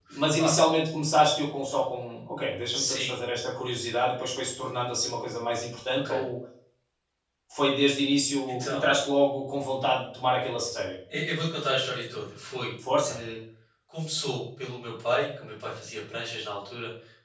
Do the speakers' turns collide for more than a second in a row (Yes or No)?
No